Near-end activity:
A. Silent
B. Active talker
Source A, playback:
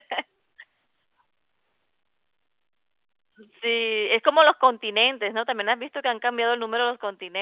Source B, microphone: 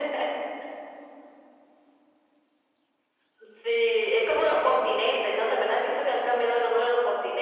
A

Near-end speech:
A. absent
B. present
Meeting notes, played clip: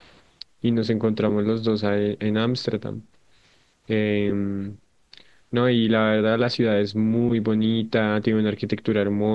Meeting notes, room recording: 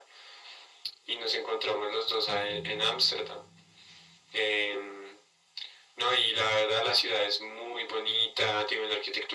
B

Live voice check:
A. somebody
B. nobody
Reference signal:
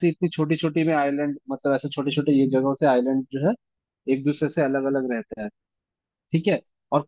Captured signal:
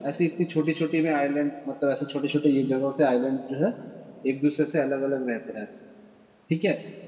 B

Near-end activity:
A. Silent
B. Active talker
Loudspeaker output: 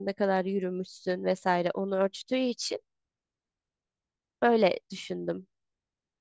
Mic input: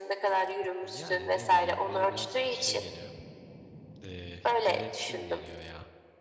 B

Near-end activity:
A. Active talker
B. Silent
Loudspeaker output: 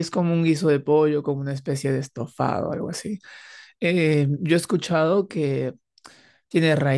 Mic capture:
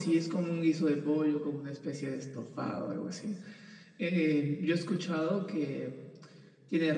B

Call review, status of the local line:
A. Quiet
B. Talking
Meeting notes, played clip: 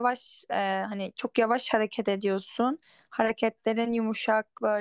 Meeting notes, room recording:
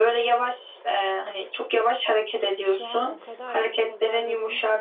B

